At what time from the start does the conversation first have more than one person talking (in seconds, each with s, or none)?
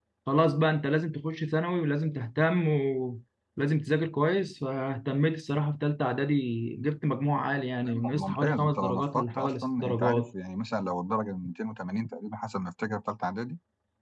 7.8 s